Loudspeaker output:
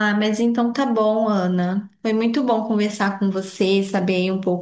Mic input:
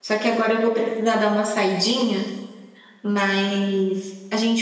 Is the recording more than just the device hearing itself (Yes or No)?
Yes